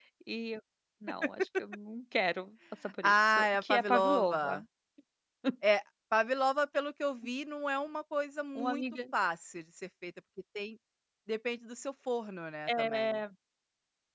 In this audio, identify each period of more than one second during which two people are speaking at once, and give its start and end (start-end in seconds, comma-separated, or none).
3.0-4.6